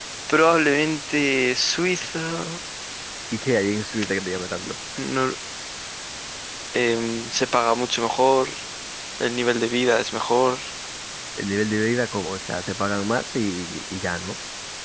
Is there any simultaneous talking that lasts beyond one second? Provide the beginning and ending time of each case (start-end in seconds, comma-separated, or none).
none